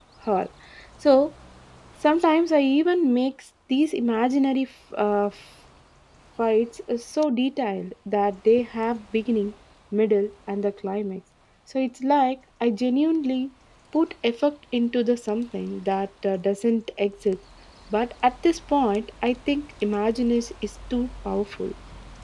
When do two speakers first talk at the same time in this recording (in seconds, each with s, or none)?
none